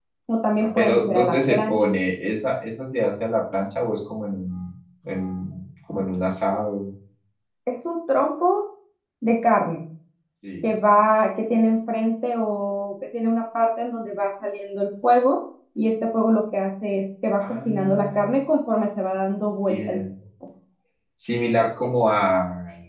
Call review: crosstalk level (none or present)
present